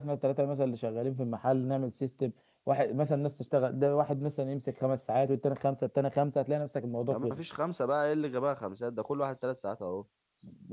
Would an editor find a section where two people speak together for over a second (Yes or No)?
No